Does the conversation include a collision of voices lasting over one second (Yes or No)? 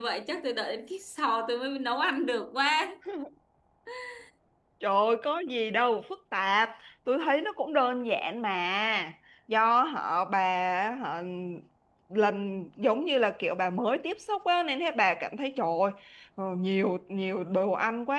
No